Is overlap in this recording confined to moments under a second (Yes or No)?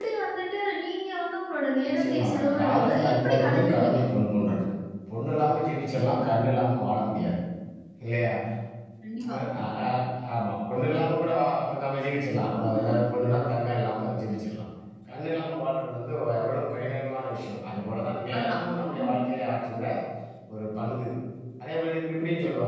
No